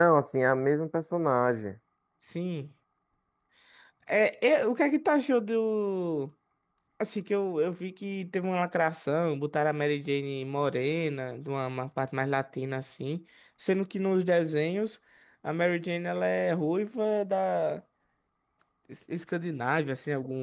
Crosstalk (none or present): none